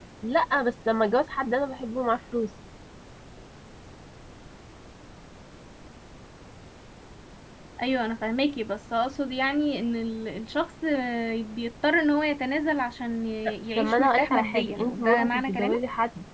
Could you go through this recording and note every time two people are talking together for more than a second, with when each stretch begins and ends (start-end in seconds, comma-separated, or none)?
13.8-15.8